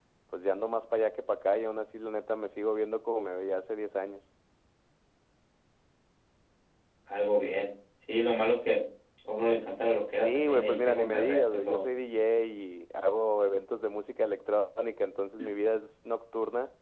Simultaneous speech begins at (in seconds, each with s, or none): 10.2 s